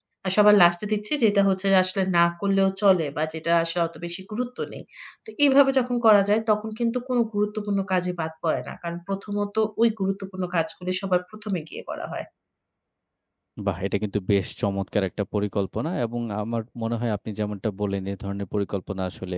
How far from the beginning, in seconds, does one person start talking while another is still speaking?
none

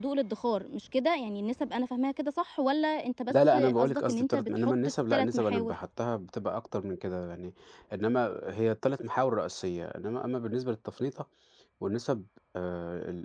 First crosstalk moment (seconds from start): 3.3 s

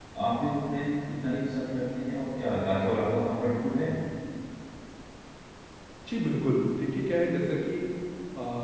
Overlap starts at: none

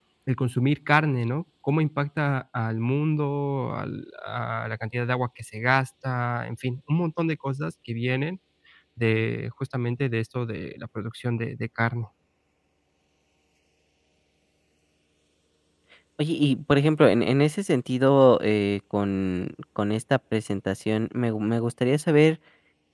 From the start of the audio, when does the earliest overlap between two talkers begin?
none

